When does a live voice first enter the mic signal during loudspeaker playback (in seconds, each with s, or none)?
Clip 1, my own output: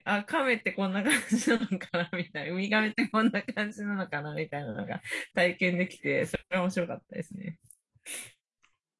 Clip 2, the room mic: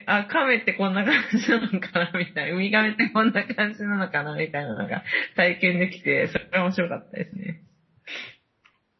none